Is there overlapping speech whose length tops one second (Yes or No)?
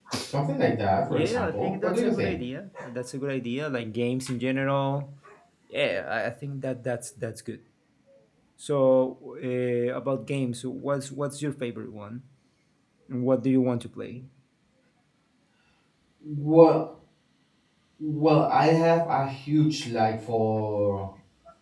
Yes